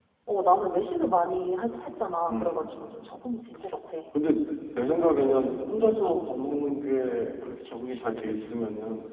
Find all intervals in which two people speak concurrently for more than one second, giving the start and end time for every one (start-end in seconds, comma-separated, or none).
none